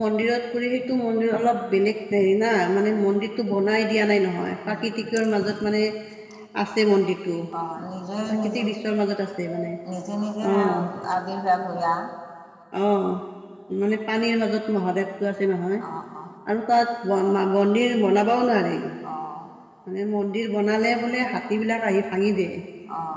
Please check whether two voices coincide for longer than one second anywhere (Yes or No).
No